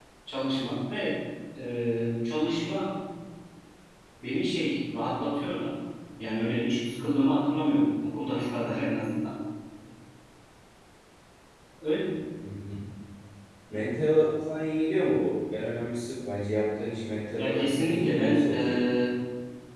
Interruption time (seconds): 17 s

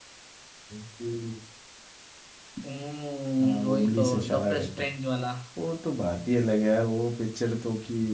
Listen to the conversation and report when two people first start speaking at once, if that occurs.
3 s

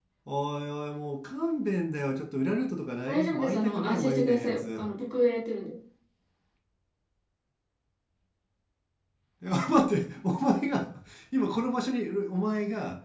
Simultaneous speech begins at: 3 s

